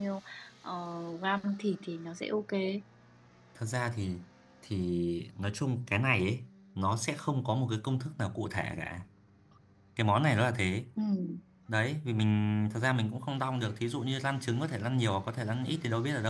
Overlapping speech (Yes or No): No